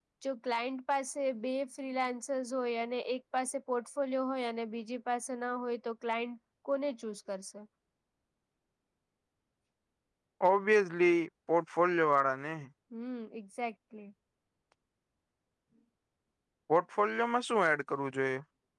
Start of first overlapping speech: none

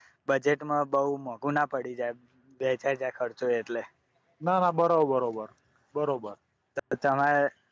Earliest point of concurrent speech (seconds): none

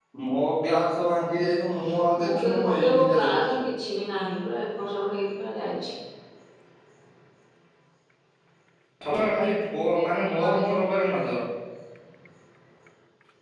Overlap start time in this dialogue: 2 s

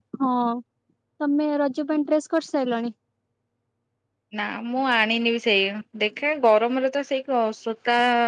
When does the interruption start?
none

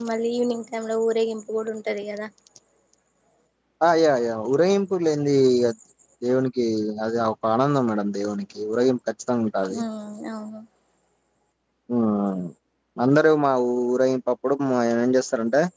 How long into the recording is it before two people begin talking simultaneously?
none

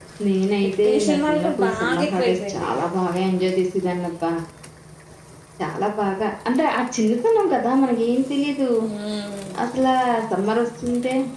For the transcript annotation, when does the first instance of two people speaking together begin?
1 s

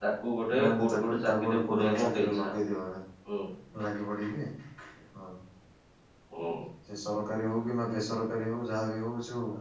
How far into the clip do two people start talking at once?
1 s

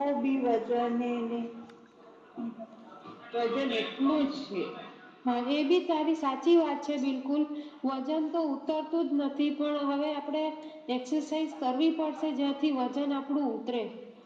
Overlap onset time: none

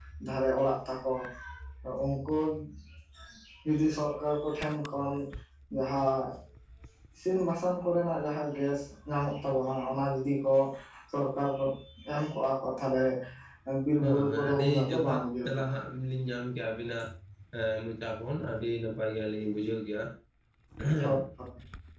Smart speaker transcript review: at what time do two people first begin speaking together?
14 s

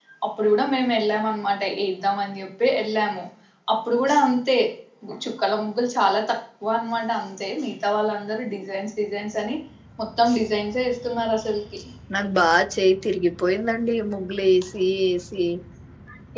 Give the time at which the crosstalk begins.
none

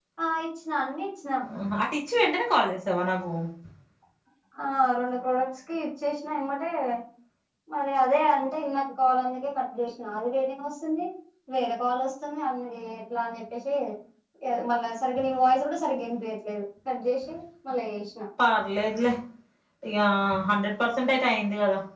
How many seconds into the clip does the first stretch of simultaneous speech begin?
none

